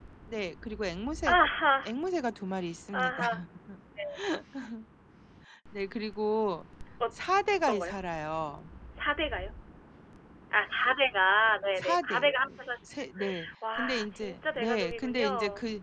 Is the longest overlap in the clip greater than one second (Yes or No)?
Yes